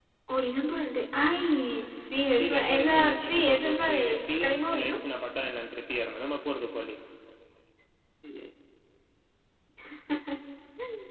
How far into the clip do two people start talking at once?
2 s

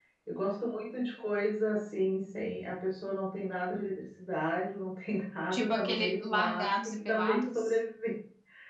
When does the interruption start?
6 s

